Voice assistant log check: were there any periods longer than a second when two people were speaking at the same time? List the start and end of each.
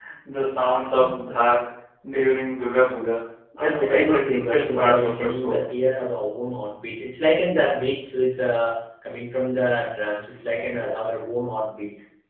3.6-5.7

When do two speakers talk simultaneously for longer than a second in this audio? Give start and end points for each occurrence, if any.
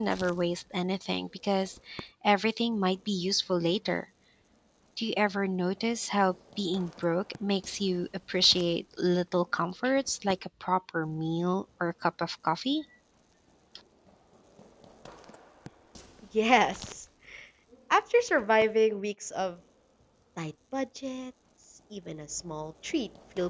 none

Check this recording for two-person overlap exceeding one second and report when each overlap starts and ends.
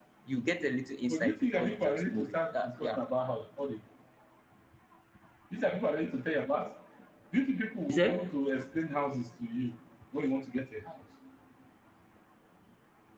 1.1-3.0

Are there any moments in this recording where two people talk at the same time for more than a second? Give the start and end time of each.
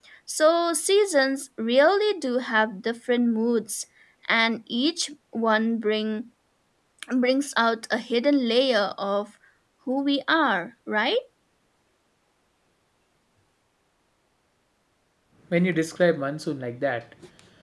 none

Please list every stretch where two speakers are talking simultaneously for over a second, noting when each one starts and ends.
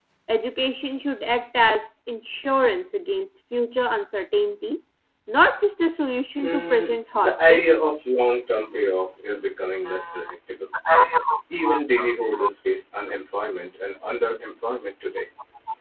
6.4-7.6

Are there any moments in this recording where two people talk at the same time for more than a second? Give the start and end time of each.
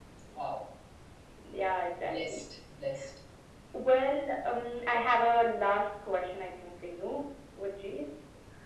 none

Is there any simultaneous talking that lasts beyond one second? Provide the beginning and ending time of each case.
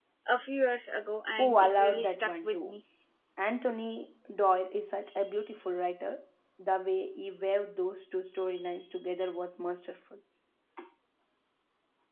1.4-2.7

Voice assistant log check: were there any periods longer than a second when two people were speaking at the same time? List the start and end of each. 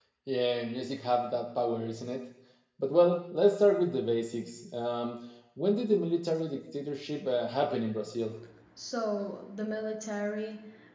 none

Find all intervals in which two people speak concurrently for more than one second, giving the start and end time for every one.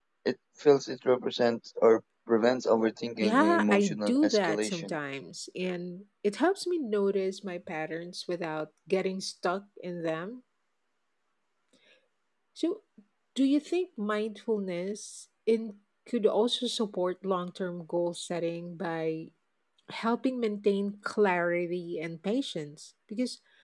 3.2-5.0

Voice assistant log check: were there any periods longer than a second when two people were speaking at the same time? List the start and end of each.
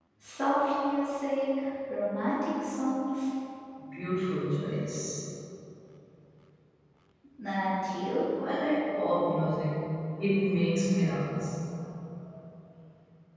none

